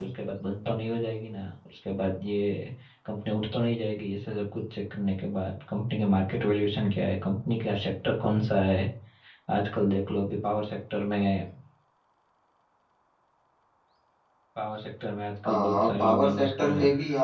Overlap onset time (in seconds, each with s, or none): 15.4 s